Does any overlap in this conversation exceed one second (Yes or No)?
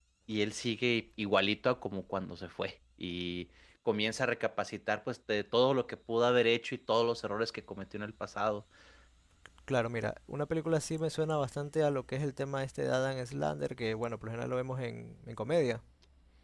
No